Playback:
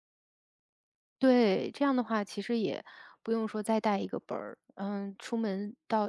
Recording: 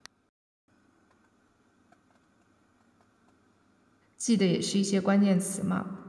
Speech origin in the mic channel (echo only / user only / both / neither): user only